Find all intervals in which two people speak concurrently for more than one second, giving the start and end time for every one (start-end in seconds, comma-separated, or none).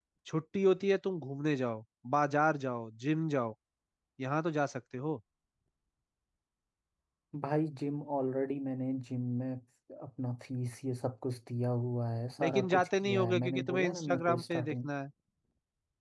12.4-14.9